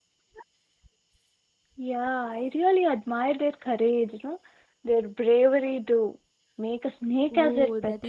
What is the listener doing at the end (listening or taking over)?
taking over